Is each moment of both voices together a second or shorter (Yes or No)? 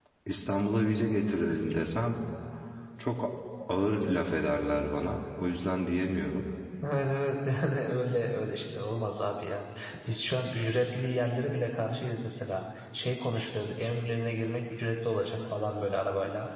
Yes